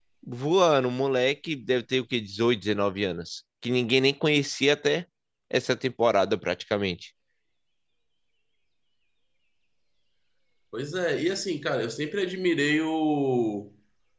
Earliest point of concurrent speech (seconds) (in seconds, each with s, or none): none